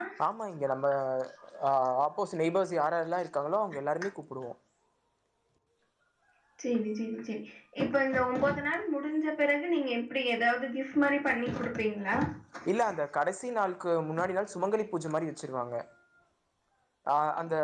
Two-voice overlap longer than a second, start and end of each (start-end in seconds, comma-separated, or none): none